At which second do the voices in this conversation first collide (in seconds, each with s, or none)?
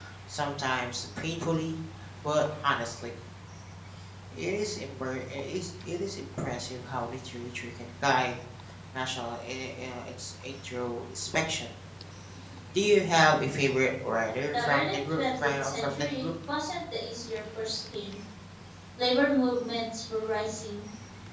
14.5 s